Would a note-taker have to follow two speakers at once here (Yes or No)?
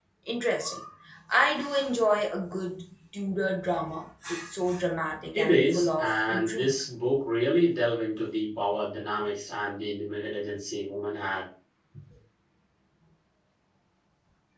Yes